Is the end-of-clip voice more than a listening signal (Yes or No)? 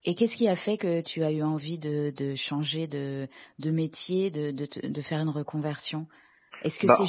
No